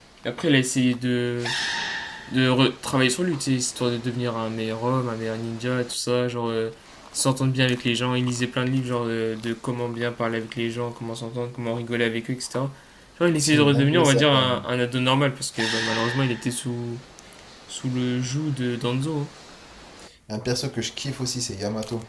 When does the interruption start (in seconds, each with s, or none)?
13.4 s